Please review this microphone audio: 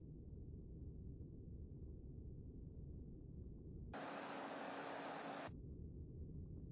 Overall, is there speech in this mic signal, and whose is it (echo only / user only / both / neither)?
neither